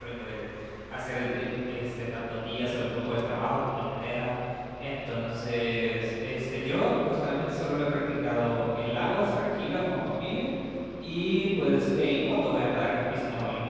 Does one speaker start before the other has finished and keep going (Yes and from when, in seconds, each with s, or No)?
No